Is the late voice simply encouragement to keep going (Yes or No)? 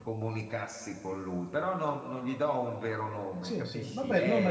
No